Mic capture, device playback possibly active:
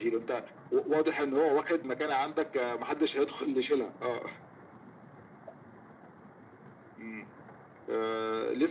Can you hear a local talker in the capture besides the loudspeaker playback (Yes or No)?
No